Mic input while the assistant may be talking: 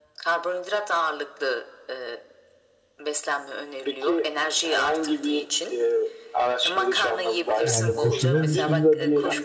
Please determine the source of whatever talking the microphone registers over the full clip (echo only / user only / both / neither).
both